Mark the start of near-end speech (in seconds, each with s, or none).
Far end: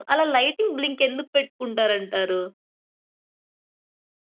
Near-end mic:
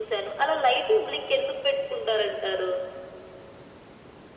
none